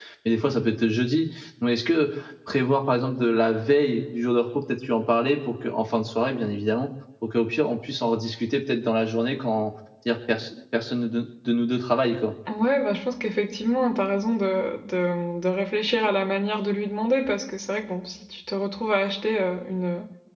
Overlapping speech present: No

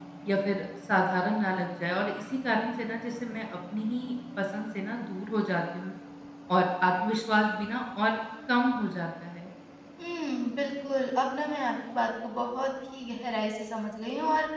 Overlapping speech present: No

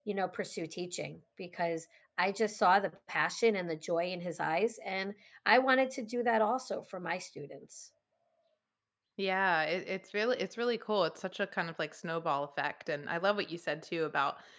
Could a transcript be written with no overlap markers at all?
Yes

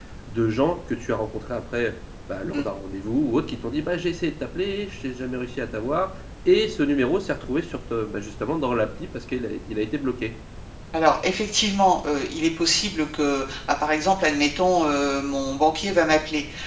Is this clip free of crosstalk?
Yes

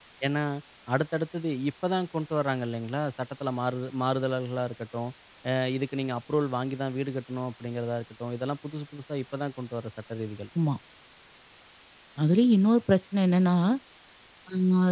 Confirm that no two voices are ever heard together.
Yes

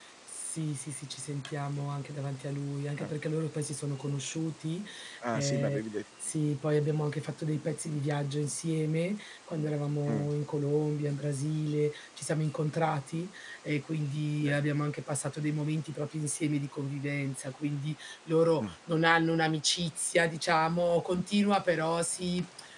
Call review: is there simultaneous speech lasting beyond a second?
No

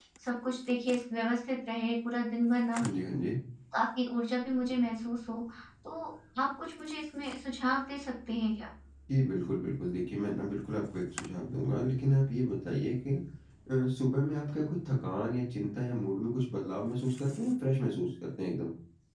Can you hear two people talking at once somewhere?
No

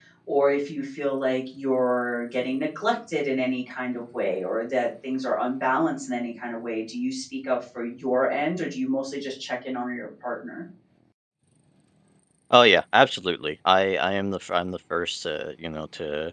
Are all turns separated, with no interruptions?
Yes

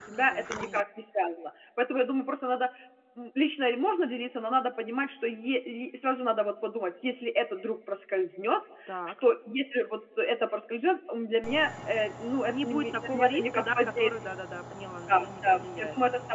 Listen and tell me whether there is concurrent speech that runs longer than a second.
Yes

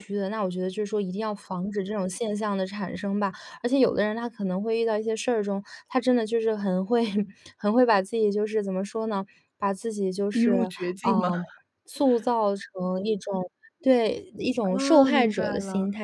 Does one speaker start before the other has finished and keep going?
Yes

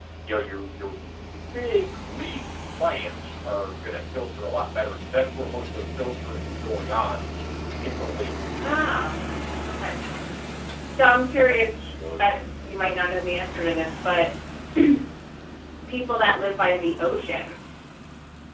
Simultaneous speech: No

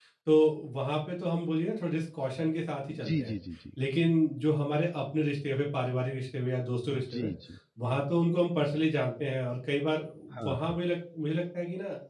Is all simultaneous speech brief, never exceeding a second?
Yes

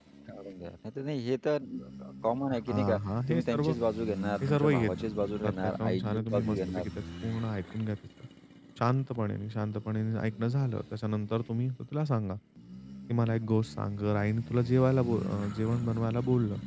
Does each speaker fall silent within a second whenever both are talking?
No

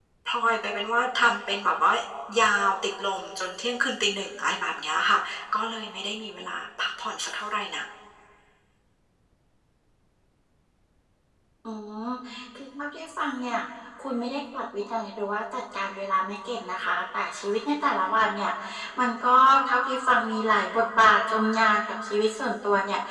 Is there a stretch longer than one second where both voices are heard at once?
No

